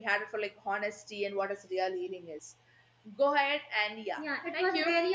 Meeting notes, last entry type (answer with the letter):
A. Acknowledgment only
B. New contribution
B